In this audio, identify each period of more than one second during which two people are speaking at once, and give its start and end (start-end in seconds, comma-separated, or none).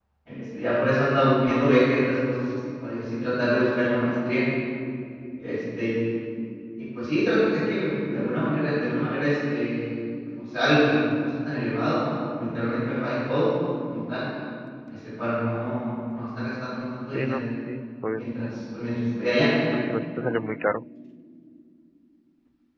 none